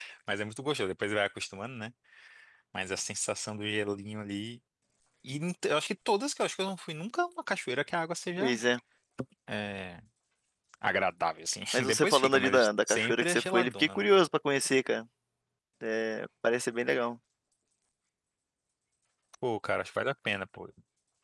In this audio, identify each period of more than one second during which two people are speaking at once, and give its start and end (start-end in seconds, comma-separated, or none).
11.7-14.1